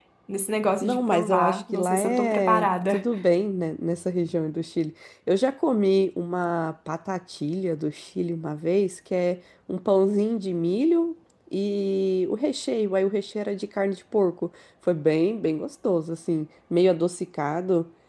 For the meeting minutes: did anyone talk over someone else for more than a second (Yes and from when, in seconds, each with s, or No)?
Yes, from 0.8 s